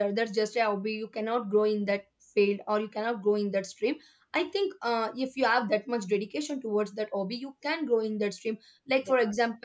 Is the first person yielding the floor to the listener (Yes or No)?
No